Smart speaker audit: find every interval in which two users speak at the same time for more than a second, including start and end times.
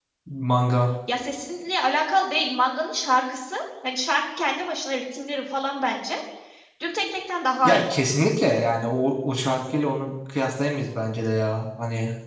none

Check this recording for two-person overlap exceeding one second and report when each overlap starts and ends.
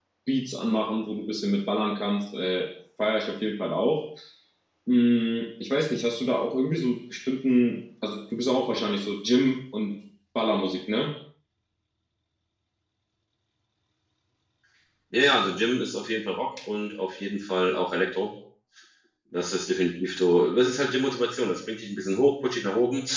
none

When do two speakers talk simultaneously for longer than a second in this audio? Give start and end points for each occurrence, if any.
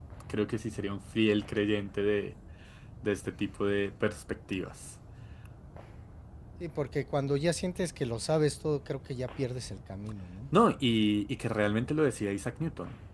none

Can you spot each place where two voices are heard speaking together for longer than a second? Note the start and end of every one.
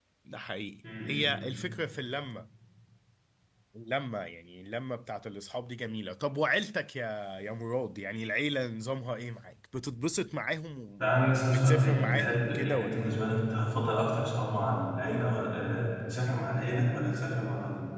11.5-13.1

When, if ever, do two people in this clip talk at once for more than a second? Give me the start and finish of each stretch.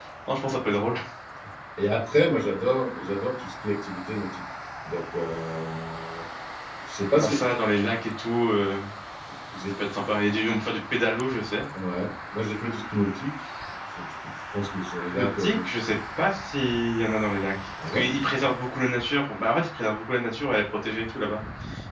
none

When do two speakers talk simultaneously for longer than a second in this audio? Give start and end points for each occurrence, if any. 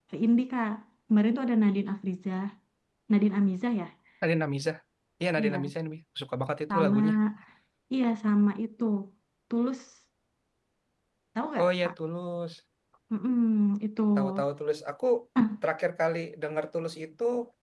none

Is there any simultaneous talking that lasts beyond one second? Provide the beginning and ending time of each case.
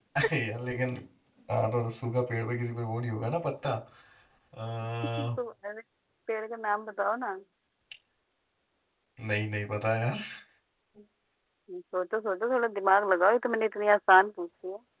none

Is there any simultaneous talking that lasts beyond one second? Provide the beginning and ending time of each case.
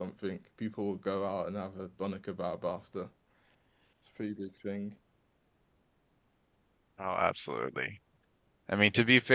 none

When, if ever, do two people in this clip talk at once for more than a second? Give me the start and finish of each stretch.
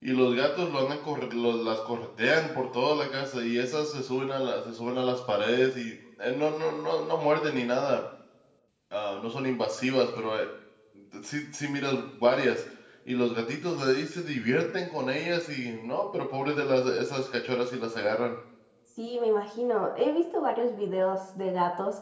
none

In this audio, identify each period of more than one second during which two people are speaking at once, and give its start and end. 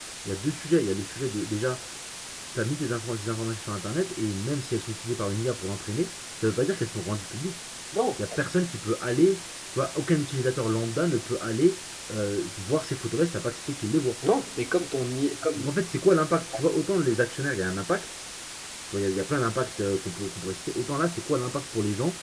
none

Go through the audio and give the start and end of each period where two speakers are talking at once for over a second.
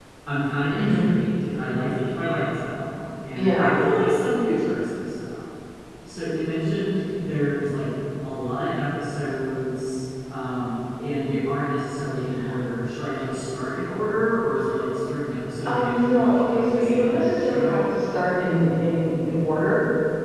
15.7-17.8

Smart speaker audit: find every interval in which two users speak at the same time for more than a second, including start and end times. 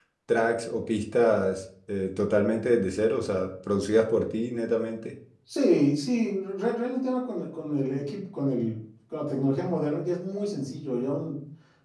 none

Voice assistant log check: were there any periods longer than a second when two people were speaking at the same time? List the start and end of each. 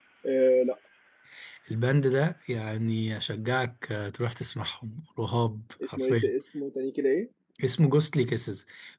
none

